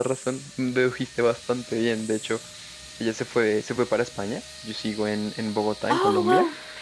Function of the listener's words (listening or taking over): listening